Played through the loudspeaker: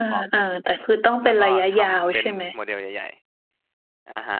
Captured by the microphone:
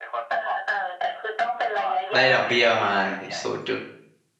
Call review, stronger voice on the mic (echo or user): user